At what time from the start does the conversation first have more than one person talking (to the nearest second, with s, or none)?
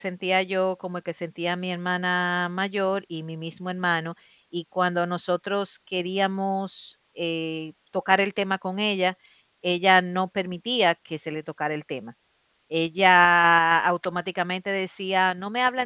none